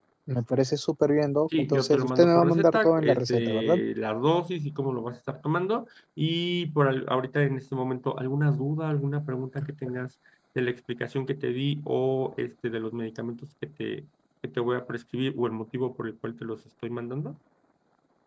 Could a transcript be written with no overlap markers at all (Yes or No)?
No